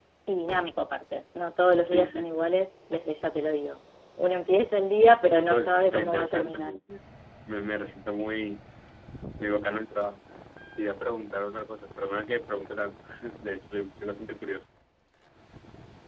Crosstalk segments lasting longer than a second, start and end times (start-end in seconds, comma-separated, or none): 5.4-6.8